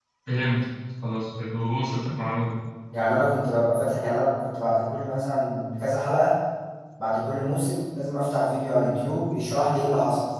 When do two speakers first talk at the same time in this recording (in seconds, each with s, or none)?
none